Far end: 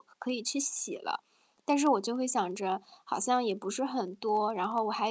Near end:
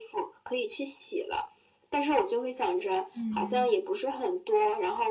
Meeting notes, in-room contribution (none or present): present